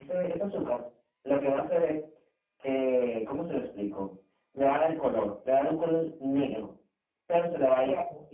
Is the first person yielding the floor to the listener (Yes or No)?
No